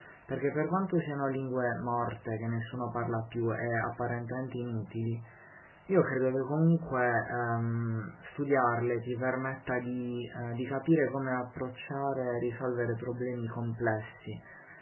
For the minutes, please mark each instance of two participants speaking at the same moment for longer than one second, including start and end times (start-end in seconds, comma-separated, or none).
none